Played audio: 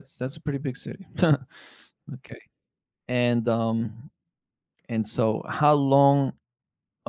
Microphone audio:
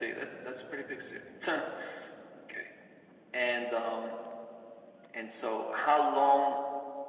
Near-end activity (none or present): none